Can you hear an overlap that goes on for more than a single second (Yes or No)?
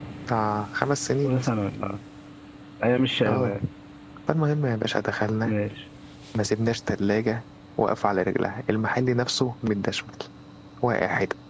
No